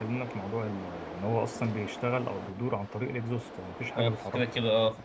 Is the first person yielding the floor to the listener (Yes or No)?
Yes